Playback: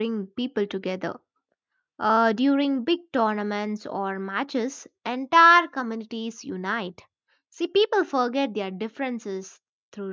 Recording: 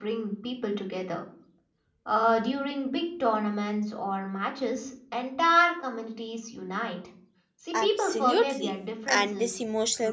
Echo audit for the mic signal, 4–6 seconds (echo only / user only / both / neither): echo only